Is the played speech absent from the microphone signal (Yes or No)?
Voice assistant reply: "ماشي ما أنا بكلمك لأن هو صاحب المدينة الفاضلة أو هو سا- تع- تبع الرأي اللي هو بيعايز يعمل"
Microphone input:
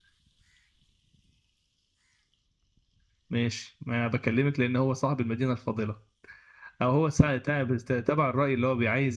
No